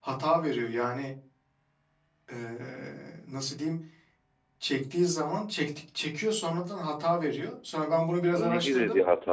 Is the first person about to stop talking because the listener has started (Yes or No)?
Yes